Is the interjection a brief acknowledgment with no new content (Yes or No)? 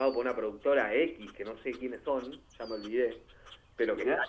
Yes